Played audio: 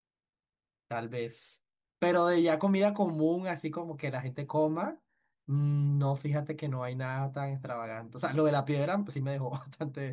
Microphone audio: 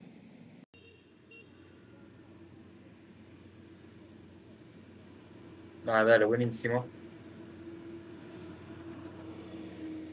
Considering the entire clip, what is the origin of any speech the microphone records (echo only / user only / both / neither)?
user only